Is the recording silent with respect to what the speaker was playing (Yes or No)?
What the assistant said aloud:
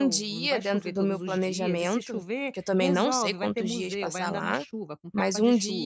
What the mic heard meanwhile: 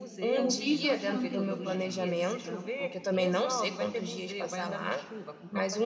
No